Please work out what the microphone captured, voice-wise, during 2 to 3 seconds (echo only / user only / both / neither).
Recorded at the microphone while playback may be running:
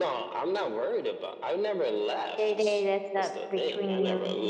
both